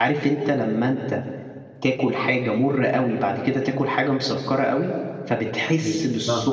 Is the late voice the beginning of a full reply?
No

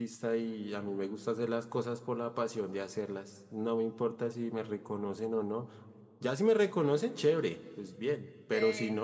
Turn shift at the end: No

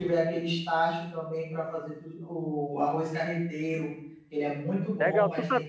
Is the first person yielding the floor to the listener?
Yes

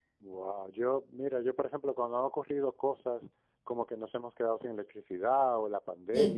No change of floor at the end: Yes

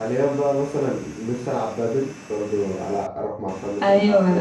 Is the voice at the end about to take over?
Yes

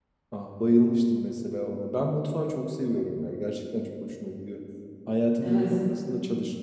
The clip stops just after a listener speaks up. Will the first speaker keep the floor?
Yes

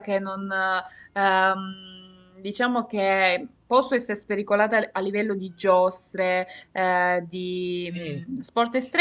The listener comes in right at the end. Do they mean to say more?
No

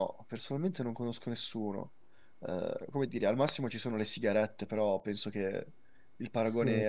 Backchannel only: No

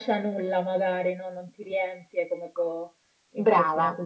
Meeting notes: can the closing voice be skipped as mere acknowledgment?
Yes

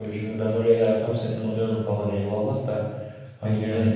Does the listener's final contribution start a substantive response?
No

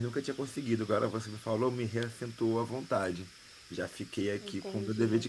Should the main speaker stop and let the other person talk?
No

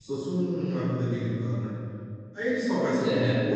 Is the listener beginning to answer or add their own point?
No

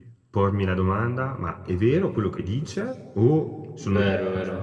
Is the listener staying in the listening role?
Yes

